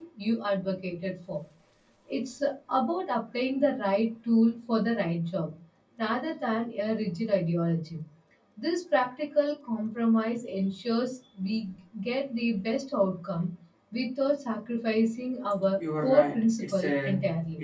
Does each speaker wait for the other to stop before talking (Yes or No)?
No